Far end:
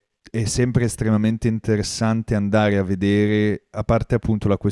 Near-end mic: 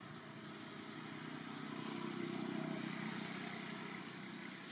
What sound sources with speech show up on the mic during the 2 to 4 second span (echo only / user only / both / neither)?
neither